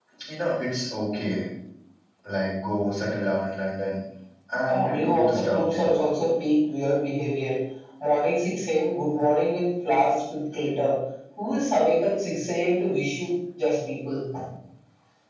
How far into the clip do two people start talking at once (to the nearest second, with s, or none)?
5 s